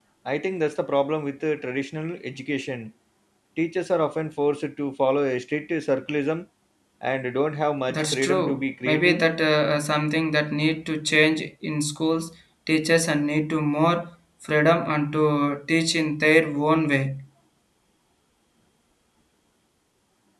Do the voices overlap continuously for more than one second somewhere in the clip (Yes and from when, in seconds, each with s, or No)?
Yes, from 7.9 s